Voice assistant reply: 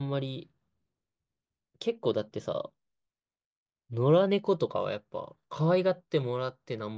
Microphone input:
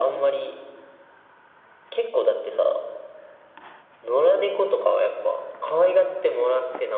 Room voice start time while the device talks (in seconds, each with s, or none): none